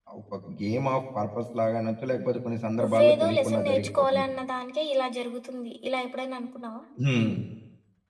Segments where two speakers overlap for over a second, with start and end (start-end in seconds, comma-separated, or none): 2.8-4.2